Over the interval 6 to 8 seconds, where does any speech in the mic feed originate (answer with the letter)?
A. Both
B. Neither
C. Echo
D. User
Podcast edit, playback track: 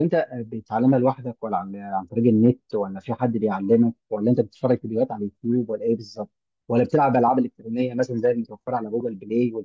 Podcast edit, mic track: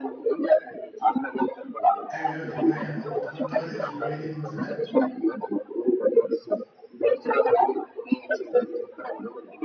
C